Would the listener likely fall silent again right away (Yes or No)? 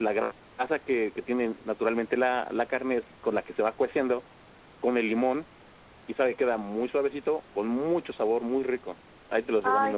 No